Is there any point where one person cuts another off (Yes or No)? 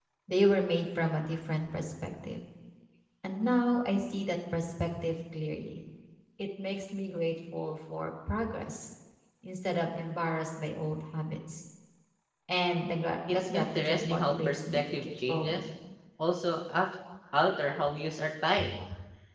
Yes